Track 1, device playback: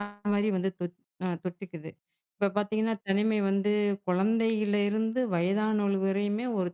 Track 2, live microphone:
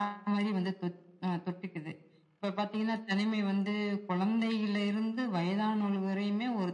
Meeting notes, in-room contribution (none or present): none